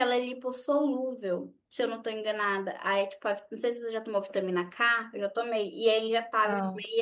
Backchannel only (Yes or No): Yes